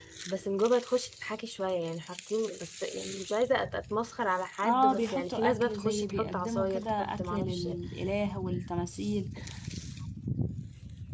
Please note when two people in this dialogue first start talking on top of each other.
4.6 s

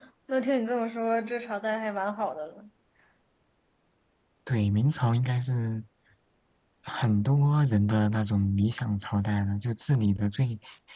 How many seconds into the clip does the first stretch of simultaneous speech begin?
none

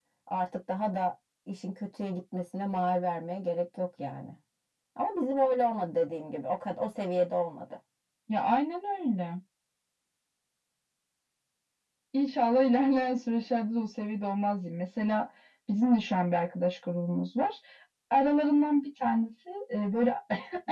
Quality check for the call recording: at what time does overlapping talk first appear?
none

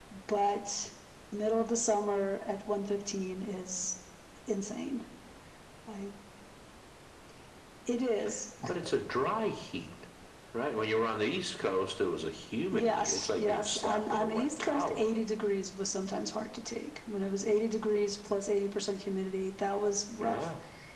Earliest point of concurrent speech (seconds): 12.7 s

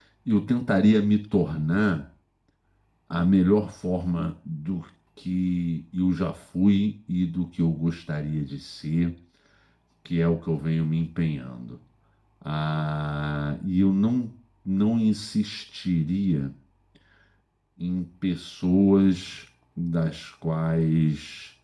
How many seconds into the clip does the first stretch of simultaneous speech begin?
none

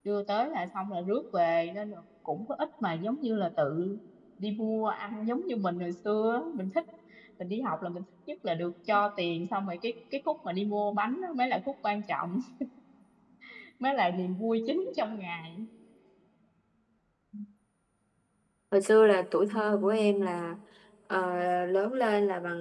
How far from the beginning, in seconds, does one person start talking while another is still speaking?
none

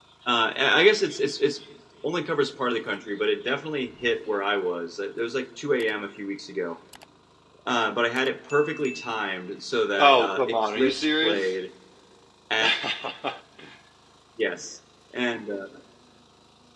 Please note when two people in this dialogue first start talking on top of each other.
9.9 s

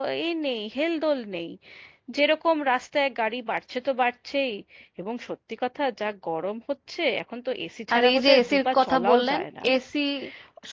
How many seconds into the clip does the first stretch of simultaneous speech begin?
7.9 s

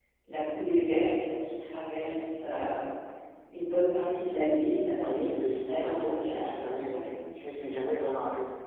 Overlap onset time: 5.0 s

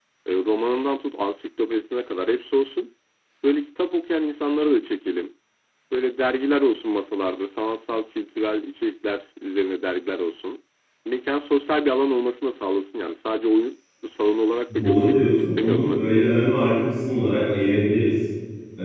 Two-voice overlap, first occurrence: 14.7 s

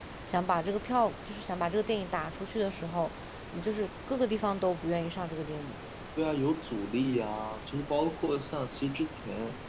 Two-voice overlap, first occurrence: none

